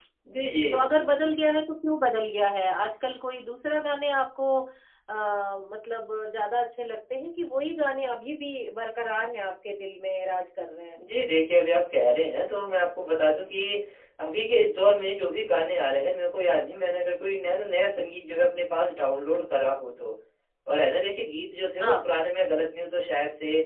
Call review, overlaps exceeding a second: none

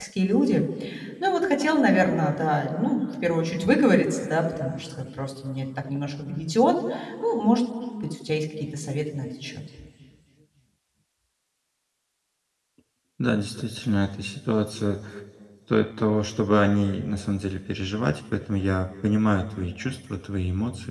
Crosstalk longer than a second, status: none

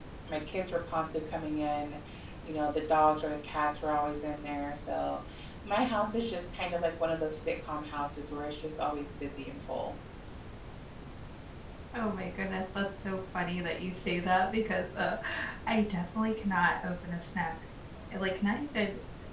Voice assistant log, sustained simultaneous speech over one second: none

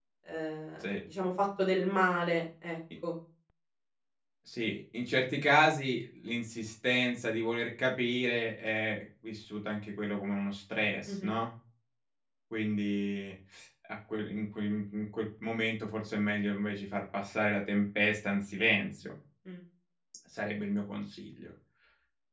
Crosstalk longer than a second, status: none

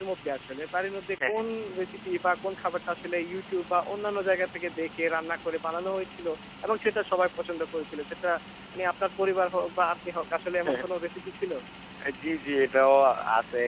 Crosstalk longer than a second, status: none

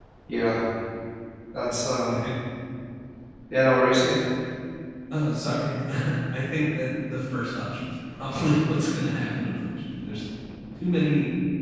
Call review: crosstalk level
none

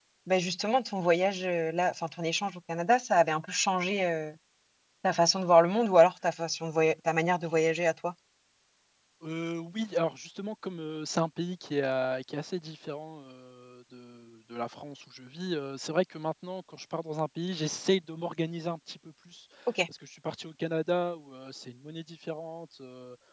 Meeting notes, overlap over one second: none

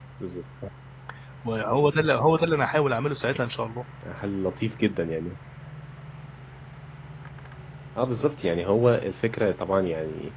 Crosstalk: none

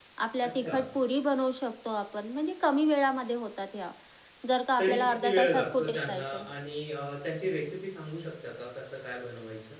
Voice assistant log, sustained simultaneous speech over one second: present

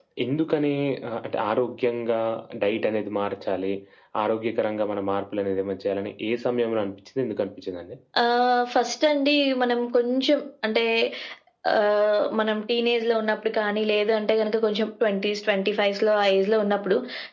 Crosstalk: none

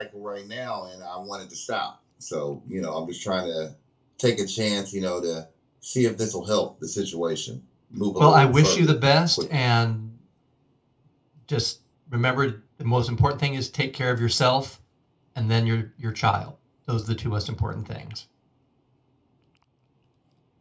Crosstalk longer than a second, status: present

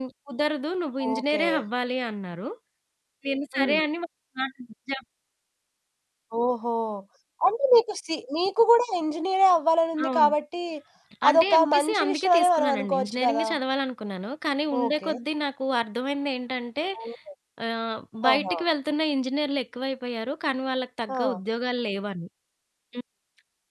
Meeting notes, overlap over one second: present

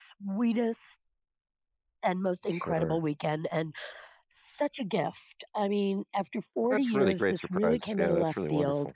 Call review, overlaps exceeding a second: present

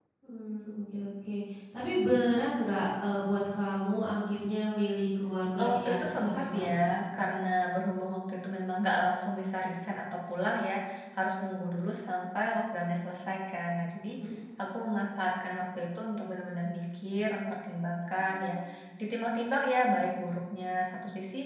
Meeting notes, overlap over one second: present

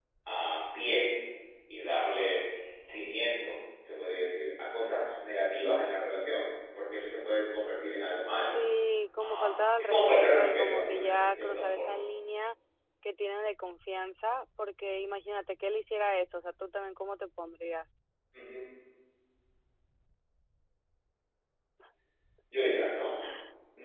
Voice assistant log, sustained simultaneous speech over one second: present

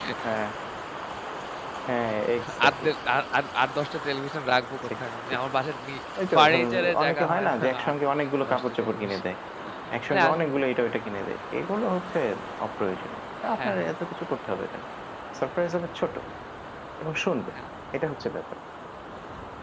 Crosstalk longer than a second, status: present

